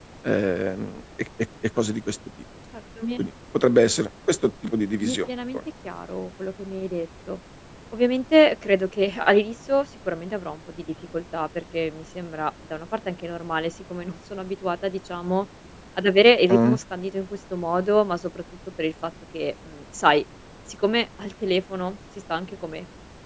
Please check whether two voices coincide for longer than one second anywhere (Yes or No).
No